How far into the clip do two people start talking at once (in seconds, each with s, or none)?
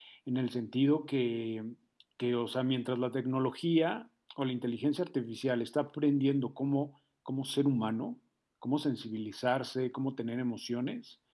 none